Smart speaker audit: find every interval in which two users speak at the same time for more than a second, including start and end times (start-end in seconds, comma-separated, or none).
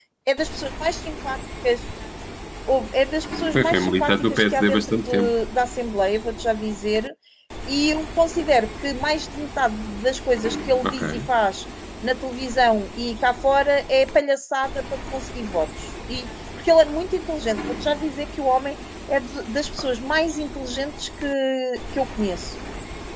3.5-5.3